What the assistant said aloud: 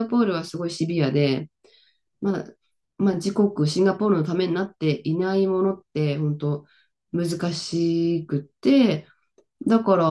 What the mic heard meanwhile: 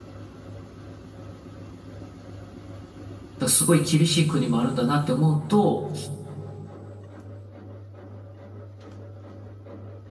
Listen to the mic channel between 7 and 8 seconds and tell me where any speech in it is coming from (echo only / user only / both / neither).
neither